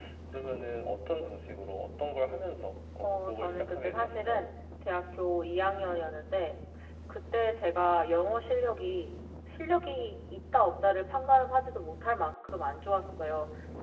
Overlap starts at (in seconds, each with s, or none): 3.0 s